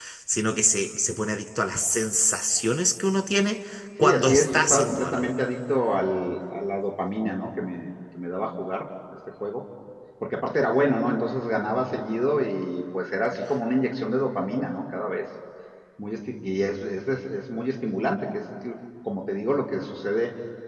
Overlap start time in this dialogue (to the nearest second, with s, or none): 4 s